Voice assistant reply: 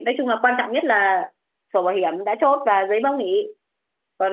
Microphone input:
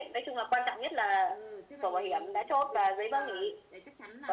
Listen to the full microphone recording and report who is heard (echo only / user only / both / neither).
both